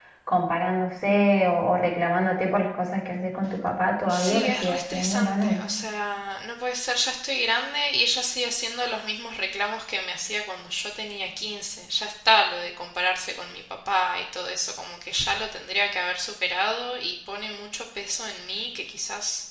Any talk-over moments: Yes, from 4.1 s

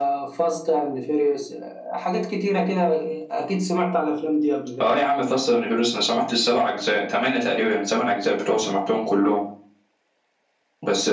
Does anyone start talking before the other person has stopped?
No

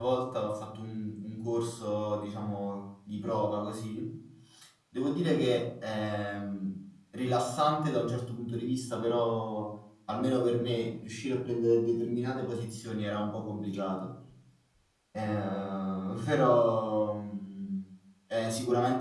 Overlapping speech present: No

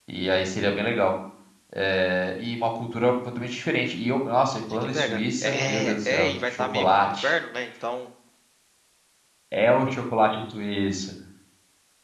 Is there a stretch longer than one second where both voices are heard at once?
Yes, from 4.7 s

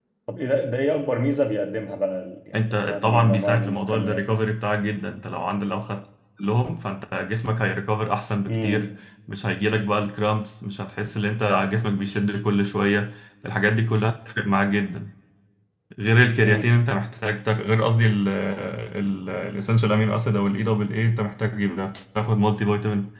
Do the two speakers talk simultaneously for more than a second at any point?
Yes, from 2.5 s

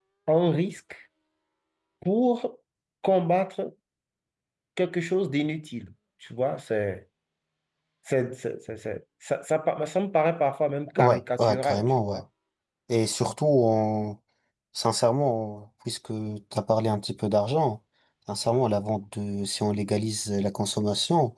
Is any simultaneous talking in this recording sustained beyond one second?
Yes, from 11.0 s

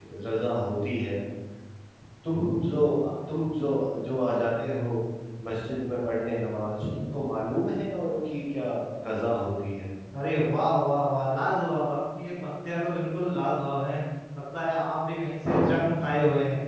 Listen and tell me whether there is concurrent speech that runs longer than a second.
No

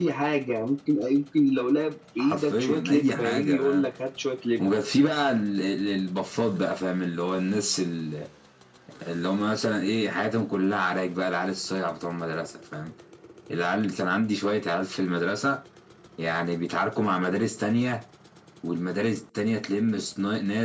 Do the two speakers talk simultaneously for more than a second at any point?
Yes, from 2.2 s

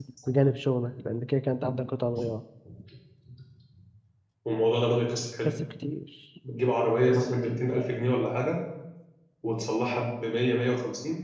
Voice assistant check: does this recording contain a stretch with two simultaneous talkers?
No

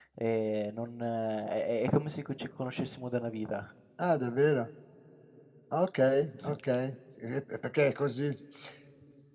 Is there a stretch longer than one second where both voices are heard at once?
No

